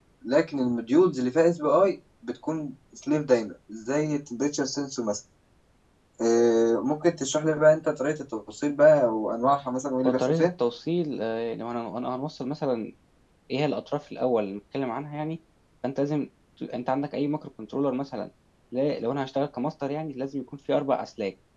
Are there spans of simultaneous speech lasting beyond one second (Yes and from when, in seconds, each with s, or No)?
No